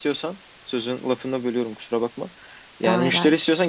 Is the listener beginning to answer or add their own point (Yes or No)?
No